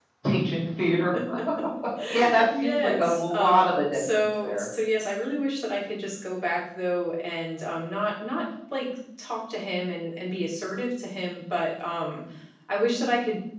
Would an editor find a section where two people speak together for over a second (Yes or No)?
Yes